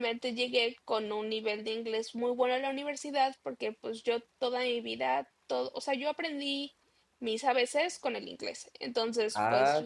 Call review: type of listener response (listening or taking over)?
taking over